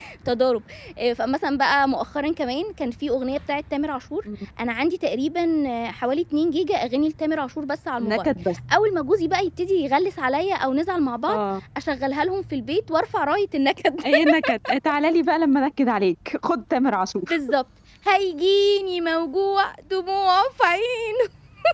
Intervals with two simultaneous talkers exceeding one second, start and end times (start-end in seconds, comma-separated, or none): none